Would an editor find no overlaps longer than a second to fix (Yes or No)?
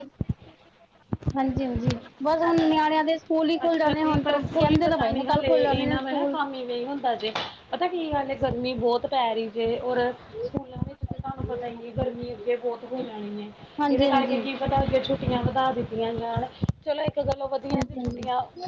No